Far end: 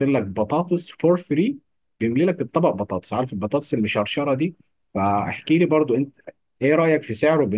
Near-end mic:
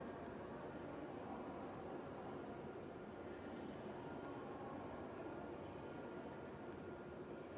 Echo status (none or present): none